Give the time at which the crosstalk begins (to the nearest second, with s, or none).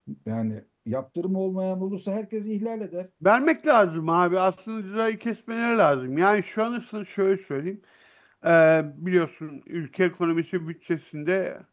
none